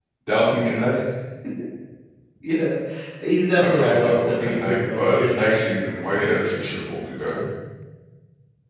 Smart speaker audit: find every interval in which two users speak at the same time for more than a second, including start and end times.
3.6-5.6

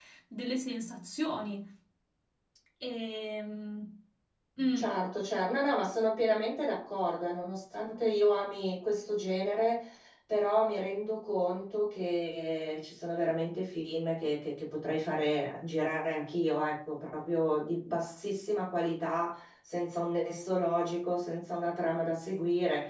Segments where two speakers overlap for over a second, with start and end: none

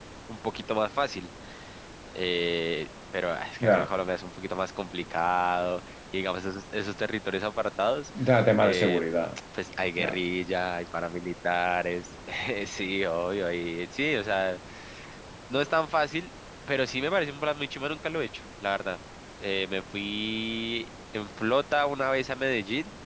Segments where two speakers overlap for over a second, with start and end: none

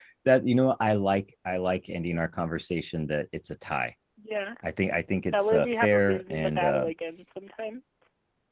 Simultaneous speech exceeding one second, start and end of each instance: 5.3-6.9

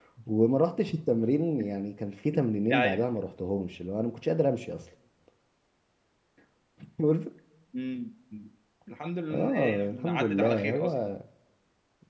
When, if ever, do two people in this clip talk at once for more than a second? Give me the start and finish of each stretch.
9.3-11.1

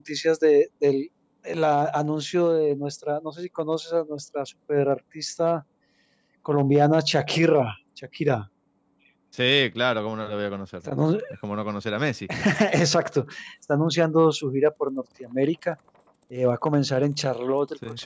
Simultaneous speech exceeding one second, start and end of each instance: none

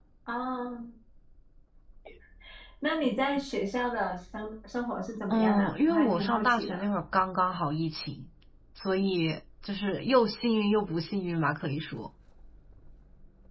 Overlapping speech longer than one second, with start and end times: 5.3-6.8

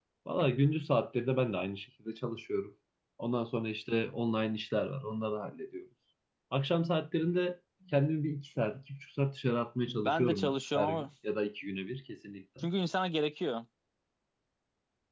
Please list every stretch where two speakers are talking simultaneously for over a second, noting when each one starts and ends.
9.8-11.1

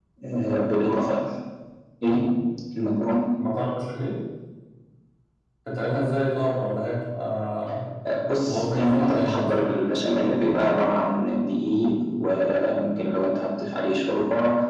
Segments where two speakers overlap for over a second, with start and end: 8.4-9.7

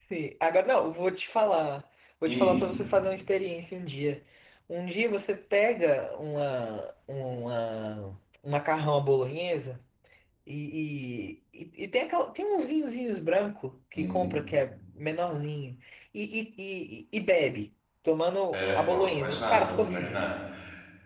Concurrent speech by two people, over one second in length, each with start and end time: 18.5-20.2

